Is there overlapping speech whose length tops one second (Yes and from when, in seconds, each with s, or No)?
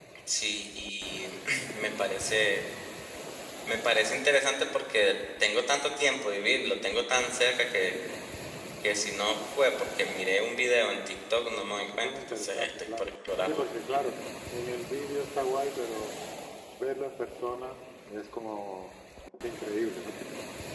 Yes, from 11.6 s